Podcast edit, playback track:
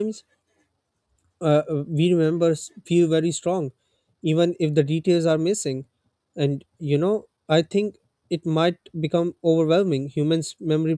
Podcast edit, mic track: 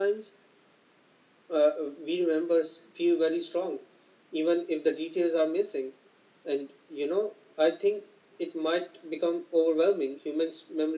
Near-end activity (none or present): none